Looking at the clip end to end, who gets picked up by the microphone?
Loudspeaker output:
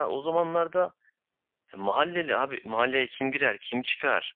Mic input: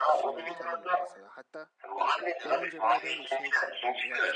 both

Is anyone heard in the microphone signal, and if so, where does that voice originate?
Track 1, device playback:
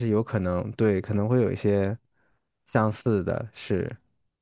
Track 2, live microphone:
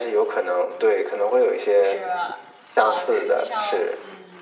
both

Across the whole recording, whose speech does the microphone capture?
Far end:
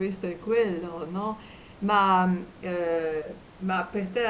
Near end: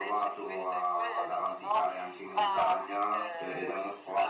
both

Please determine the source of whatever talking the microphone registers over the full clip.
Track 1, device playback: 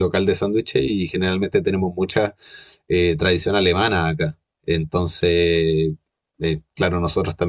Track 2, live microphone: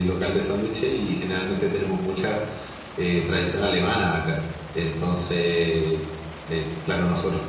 echo only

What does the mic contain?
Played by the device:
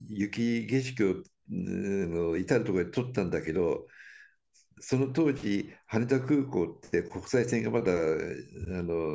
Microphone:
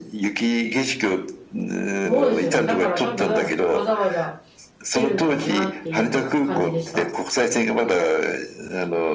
both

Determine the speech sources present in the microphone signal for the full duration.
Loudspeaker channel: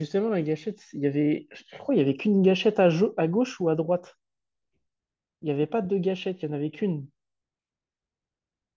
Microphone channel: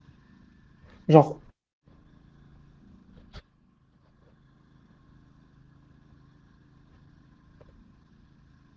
user only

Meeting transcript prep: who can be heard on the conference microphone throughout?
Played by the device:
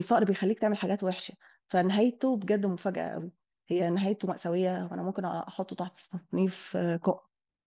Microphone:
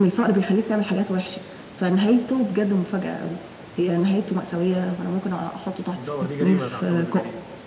both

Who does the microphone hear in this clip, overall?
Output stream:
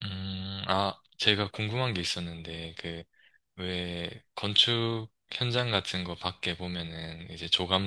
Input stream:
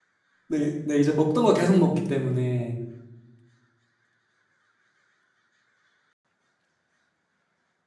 user only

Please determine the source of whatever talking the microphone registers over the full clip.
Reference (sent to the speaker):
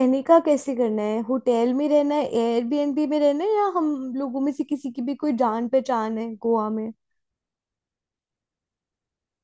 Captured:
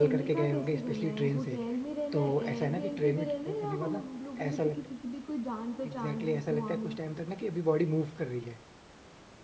both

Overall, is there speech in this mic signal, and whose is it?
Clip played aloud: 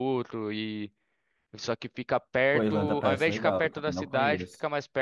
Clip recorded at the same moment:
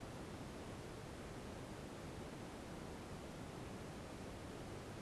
neither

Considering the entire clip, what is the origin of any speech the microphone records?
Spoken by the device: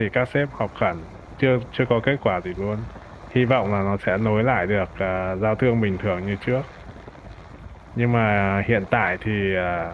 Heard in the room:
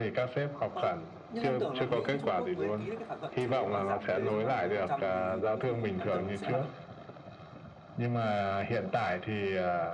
both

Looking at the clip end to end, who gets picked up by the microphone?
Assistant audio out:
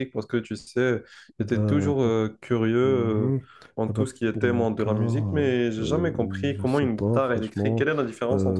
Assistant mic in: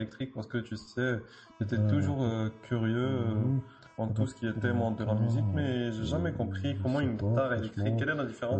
echo only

